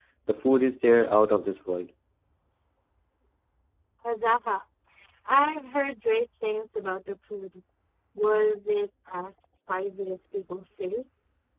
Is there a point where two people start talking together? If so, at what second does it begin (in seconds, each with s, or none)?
none